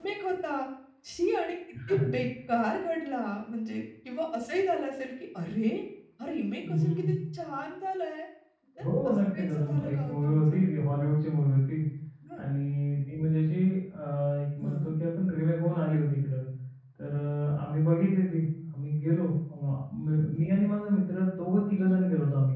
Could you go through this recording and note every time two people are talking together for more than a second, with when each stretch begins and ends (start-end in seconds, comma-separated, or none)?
8.8-10.6